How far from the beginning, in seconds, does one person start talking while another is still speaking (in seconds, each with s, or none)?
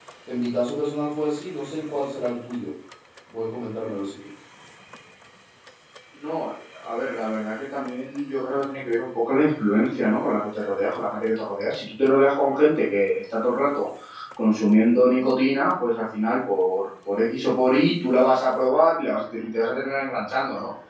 none